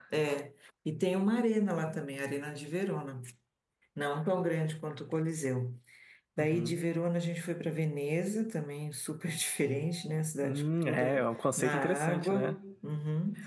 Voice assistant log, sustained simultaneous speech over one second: present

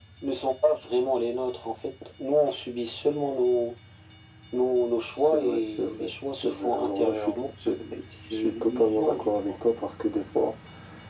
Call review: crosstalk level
present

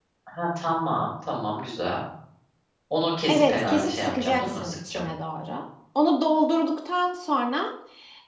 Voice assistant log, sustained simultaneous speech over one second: present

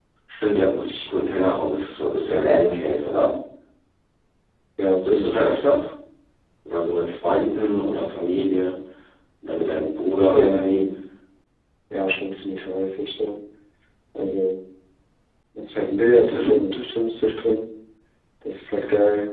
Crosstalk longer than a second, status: none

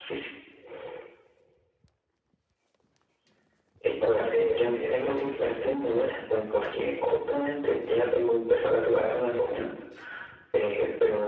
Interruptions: present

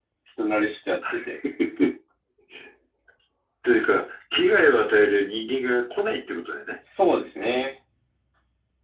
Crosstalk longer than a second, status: none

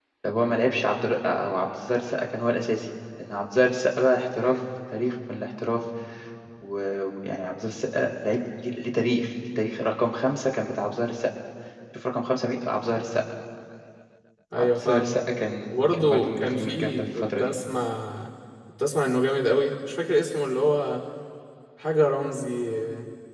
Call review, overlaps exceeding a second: present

